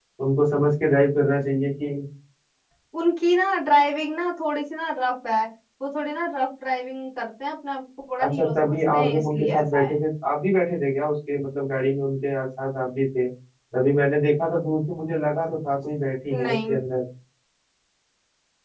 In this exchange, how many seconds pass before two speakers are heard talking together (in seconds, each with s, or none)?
8.2 s